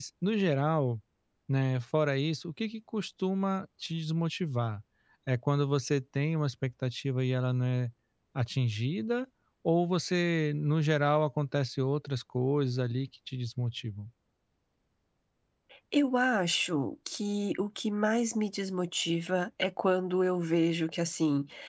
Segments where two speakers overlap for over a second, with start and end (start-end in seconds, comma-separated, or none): none